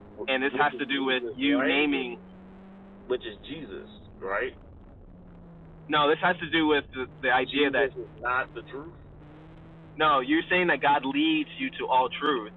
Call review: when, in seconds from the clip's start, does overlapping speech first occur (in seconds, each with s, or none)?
0.5 s